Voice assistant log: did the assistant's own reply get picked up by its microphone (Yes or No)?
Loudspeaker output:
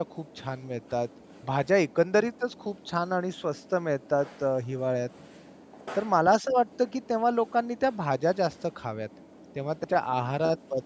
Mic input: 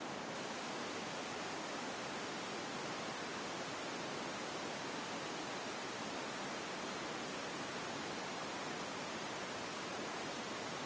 No